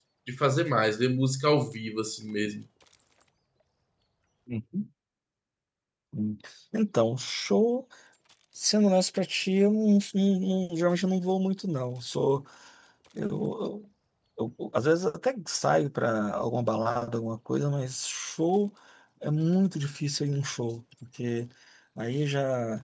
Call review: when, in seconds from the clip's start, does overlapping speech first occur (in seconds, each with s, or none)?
none